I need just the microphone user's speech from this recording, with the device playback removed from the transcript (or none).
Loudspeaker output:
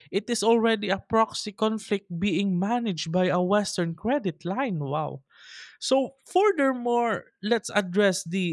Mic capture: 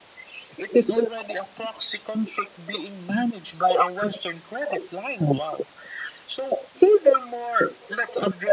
none